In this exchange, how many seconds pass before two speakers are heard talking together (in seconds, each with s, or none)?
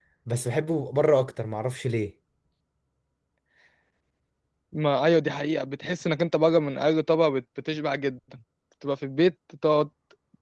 none